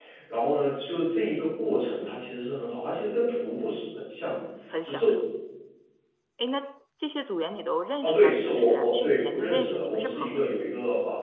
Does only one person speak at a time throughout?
No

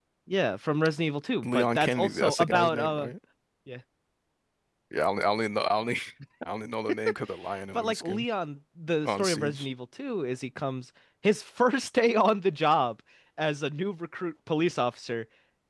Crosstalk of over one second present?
Yes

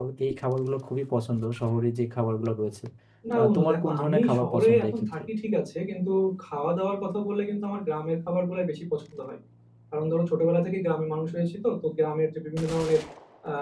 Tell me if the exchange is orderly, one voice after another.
No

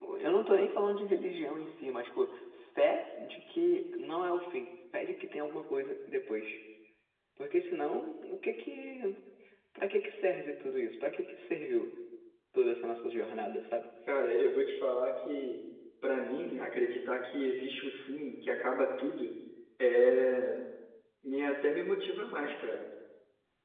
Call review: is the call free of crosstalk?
Yes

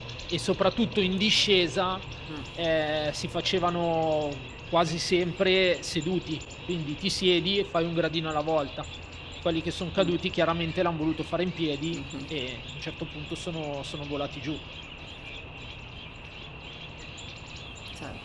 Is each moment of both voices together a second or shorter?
Yes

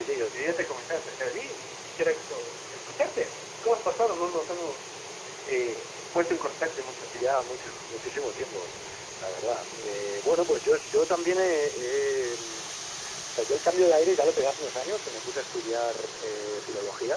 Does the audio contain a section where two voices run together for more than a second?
No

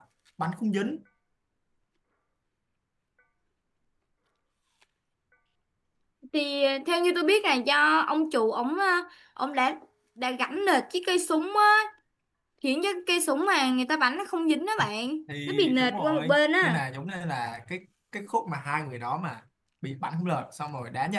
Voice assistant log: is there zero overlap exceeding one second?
No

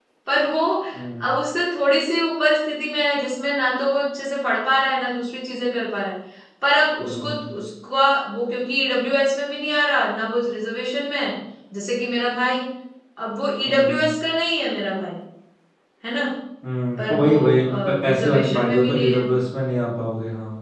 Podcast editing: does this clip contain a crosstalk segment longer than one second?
Yes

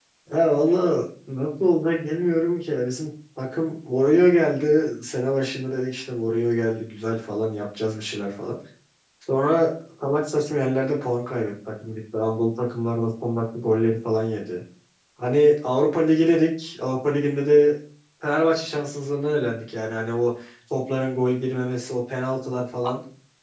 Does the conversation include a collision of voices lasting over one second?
No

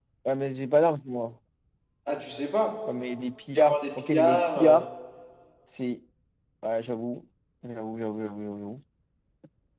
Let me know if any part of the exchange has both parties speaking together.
Yes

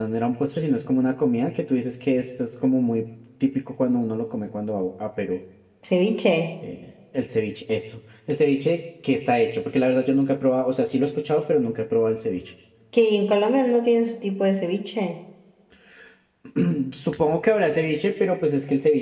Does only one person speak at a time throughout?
Yes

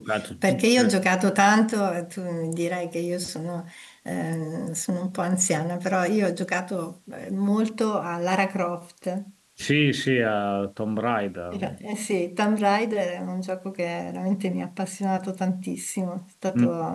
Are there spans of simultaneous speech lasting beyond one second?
No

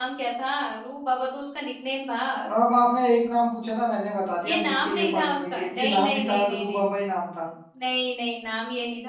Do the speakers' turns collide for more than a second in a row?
Yes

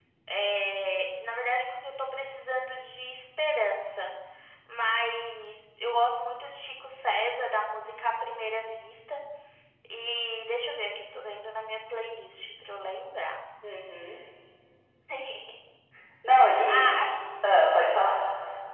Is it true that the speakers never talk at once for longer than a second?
Yes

